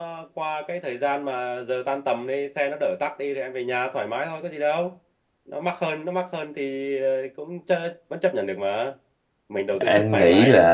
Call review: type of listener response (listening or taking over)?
taking over